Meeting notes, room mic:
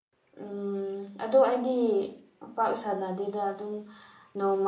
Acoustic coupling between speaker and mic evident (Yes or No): No